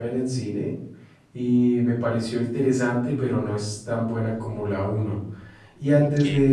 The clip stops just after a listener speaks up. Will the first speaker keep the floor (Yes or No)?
Yes